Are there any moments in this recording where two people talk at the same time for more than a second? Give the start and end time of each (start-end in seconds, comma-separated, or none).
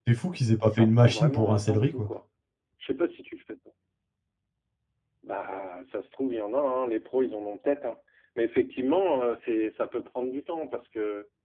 0.7-2.1